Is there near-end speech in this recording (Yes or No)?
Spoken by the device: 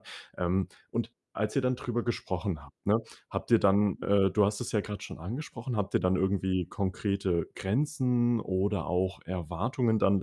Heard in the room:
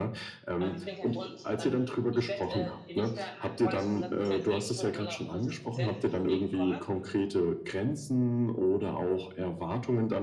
Yes